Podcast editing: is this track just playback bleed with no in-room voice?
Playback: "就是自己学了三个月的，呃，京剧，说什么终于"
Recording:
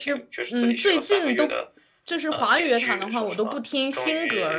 No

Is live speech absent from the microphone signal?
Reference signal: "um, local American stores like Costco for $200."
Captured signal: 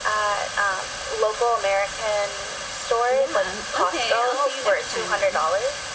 No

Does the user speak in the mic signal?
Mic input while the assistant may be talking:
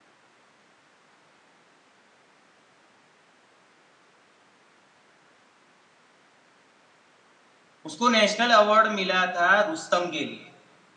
Yes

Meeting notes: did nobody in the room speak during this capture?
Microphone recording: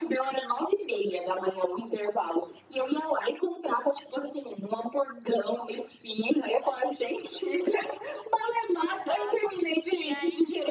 No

